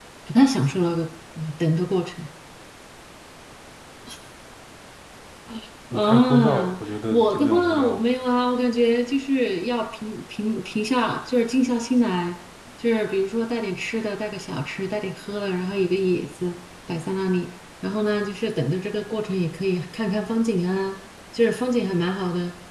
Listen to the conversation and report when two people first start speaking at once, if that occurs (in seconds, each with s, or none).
5.9 s